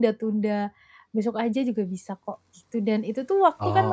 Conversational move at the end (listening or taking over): listening